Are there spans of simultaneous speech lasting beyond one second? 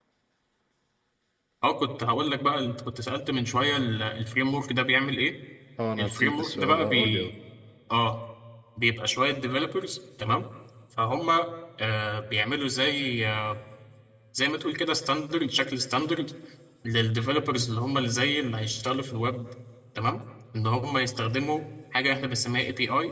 Yes, from 6.0 s

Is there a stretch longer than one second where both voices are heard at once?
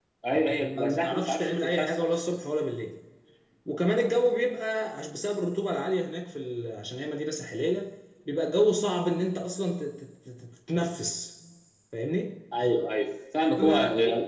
Yes, from 0.6 s

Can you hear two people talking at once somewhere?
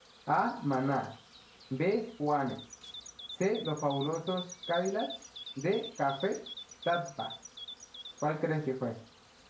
No

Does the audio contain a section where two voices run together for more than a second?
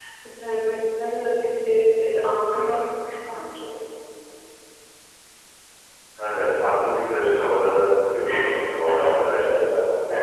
No

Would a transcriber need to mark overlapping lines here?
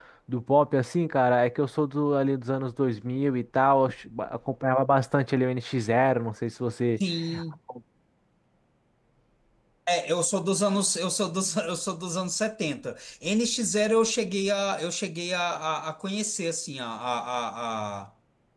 No

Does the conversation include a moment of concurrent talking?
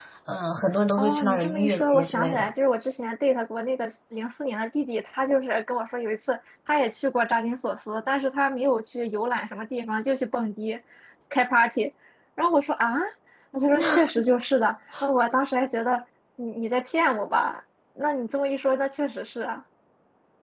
Yes, from 1.0 s

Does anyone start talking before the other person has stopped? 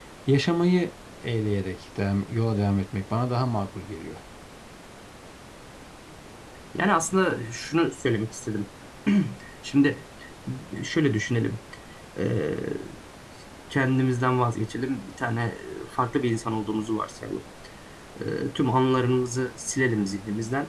No

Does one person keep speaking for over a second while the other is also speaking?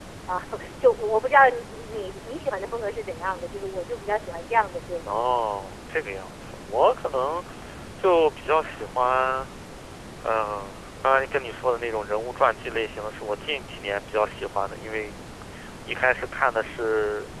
No

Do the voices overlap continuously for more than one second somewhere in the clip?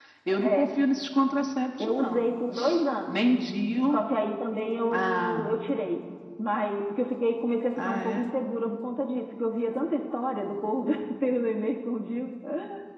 No

